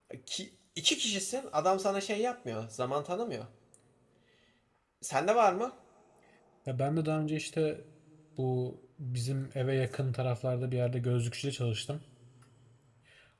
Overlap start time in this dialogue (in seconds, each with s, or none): none